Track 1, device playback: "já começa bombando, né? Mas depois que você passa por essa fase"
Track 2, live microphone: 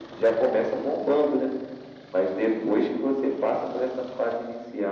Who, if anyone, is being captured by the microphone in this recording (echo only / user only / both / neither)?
echo only